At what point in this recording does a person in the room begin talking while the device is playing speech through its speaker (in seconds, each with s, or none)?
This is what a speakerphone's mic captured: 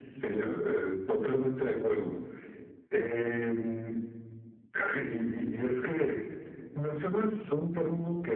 none